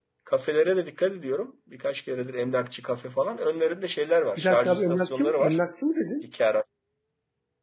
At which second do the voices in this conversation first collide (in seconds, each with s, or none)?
4.4 s